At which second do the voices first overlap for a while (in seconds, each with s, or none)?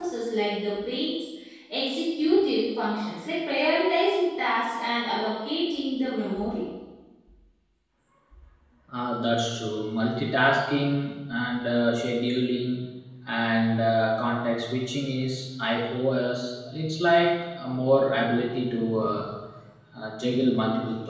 none